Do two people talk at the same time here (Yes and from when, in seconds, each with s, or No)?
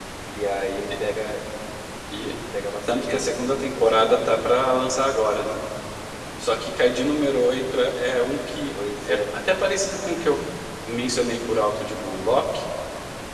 Yes, from 2.9 s